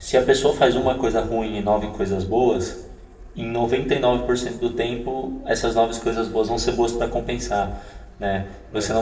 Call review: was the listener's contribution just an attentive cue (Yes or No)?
Yes